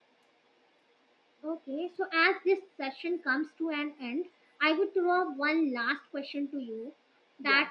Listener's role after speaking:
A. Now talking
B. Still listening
B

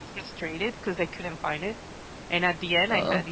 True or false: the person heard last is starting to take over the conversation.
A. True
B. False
B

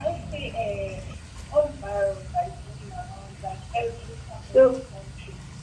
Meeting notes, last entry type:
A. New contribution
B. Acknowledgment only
B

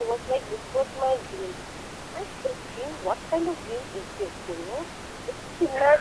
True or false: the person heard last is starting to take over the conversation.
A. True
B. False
B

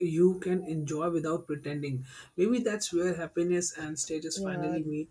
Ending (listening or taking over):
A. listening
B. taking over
B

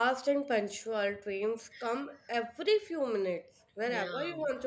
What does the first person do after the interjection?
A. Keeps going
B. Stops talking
A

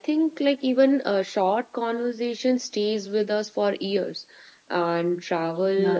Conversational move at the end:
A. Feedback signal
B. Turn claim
A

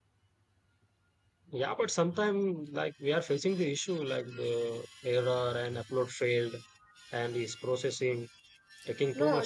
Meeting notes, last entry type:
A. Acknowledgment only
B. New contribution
B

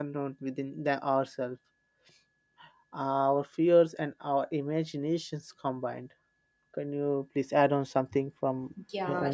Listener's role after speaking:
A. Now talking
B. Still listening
A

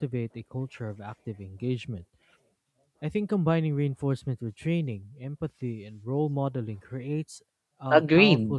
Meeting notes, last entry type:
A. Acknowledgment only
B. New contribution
B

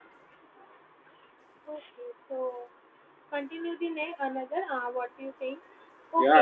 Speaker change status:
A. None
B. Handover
B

